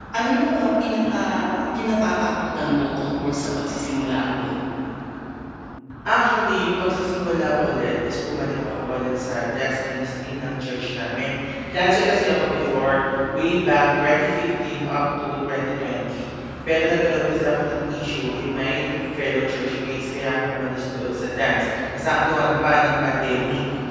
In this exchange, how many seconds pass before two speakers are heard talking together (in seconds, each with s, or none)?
none